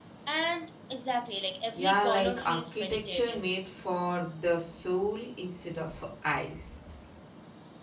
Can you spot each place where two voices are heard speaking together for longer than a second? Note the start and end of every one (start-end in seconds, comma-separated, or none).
1.8-3.4